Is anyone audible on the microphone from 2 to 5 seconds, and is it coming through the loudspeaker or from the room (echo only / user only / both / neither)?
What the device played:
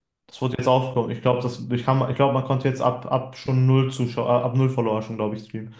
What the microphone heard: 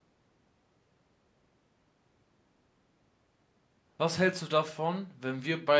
user only